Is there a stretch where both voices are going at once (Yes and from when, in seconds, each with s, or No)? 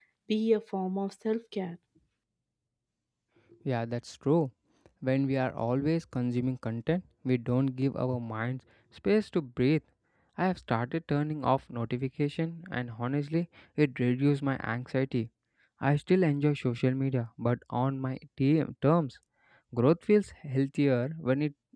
No